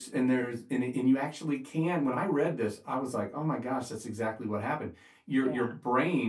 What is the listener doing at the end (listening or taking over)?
listening